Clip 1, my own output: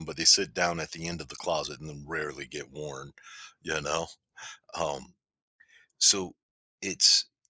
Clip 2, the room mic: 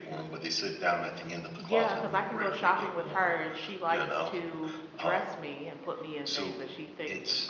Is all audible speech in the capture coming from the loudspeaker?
No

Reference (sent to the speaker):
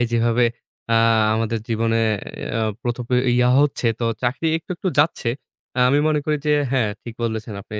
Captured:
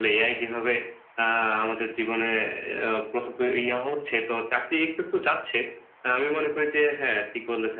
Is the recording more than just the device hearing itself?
No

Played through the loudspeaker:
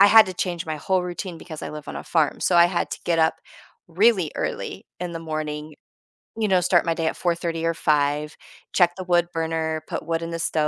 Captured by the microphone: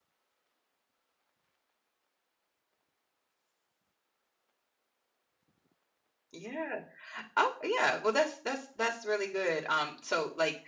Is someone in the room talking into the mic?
Yes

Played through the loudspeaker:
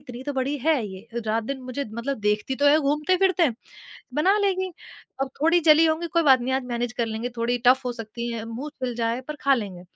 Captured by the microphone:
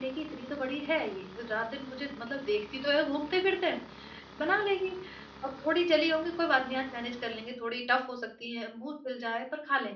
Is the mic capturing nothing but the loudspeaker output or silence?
Yes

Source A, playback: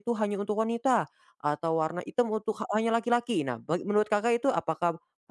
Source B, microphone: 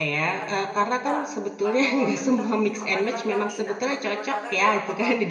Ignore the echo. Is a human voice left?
Yes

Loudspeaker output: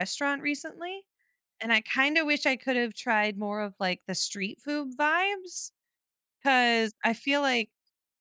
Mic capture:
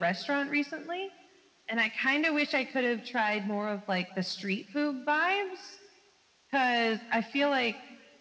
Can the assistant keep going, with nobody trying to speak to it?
Yes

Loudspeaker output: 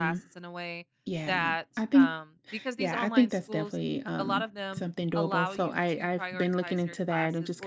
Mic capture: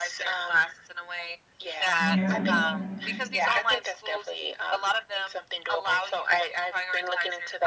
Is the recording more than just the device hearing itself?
Yes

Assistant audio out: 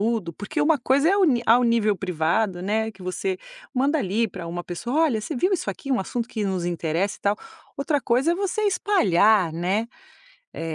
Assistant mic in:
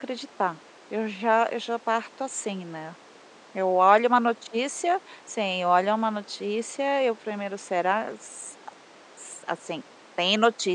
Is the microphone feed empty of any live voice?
No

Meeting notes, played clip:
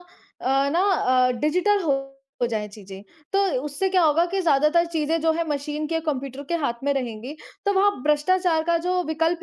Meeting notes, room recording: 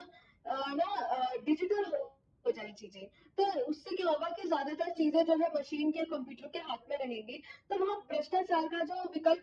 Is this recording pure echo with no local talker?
Yes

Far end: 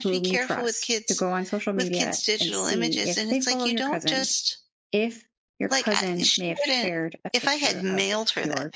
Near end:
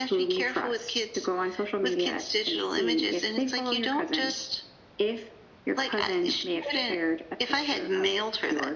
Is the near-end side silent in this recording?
Yes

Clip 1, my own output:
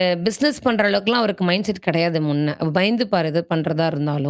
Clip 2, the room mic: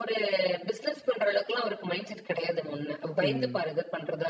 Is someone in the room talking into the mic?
Yes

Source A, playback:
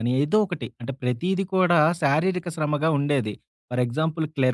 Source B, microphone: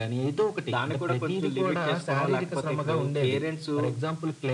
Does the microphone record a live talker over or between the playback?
Yes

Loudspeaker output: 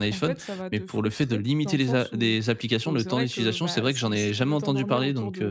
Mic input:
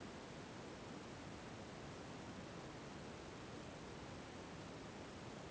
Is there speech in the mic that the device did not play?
No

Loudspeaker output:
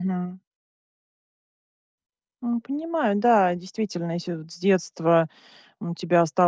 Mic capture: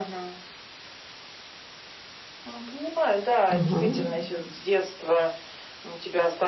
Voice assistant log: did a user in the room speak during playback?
Yes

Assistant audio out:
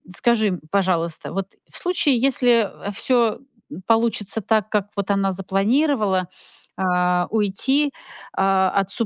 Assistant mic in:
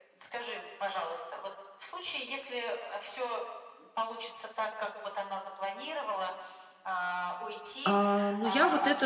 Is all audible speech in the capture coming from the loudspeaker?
No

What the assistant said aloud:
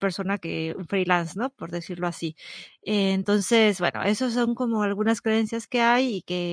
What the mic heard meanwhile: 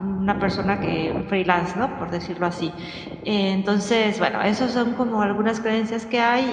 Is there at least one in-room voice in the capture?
No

